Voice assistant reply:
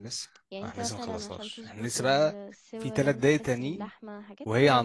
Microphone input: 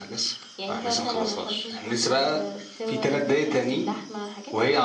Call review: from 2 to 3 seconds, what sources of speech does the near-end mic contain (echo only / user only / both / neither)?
echo only